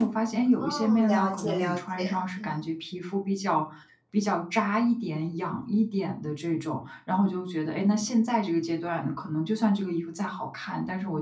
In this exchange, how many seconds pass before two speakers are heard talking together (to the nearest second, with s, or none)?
1 s